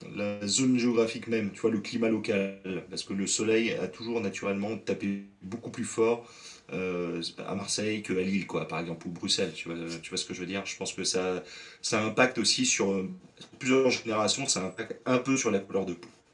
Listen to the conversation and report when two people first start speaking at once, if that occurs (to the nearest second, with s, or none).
none